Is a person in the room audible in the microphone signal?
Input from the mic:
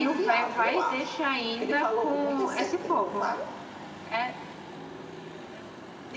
No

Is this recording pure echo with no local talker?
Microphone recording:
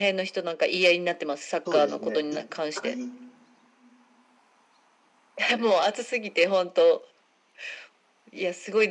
No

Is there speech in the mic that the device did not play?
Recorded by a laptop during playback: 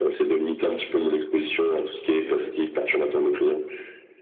No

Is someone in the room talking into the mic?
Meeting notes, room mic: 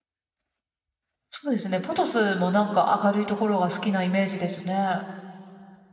Yes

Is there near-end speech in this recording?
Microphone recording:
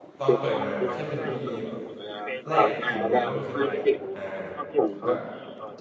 Yes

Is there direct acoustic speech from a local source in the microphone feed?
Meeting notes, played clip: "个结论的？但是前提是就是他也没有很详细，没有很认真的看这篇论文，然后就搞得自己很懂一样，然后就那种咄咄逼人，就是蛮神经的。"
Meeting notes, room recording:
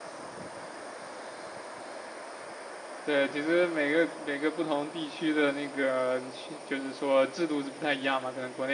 Yes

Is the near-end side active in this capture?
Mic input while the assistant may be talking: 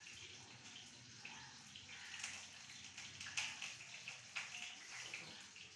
No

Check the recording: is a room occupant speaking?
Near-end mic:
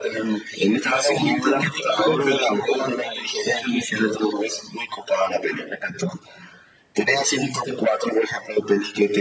No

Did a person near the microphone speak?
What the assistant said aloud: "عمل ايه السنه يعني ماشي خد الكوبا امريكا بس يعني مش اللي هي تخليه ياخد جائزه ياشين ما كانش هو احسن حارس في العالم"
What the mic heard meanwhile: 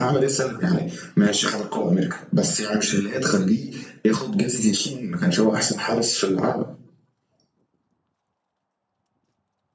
No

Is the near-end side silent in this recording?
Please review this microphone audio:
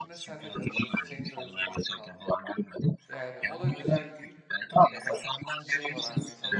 No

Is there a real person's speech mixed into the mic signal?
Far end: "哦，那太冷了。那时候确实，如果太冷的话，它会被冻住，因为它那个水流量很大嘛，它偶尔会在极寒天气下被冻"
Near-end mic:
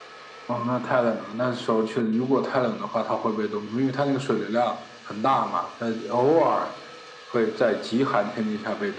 No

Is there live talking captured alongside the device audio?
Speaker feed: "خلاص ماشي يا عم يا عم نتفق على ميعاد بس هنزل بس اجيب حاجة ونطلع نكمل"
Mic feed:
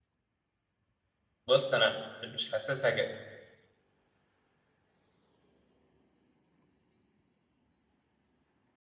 Yes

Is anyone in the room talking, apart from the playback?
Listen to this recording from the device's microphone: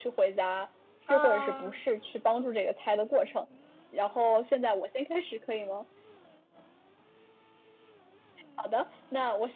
Yes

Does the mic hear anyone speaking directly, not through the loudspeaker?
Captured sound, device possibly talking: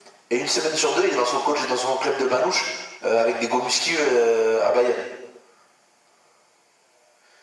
No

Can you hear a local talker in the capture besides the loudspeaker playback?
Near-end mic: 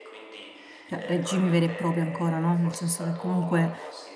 Yes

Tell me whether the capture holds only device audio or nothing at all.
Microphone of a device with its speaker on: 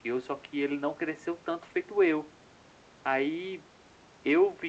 Yes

